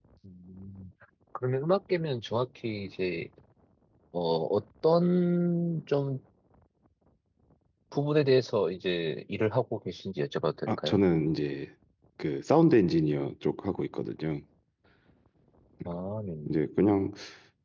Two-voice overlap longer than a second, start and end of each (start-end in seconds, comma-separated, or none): none